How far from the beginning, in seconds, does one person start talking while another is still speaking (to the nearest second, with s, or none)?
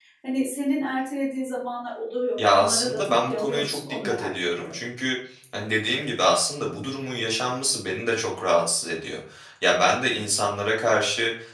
2 s